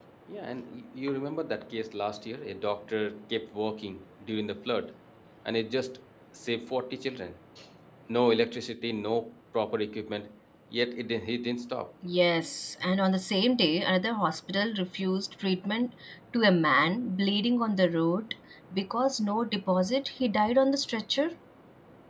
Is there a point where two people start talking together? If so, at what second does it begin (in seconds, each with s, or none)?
none